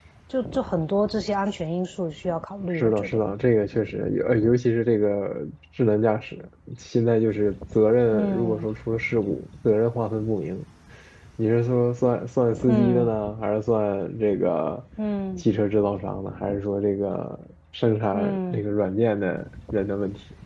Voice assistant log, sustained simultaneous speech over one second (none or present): none